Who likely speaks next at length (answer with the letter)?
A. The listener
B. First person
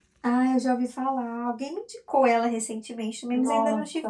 A